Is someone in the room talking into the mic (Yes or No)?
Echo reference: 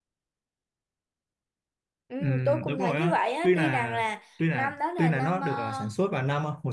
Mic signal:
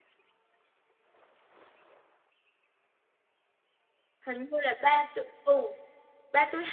Yes